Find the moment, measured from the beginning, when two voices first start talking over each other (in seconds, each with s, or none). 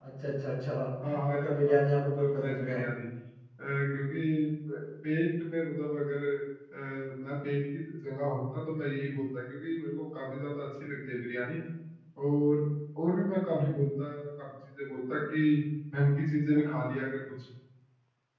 1.3 s